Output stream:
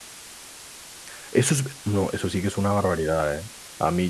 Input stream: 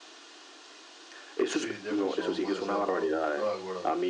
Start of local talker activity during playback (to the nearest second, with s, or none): 1 s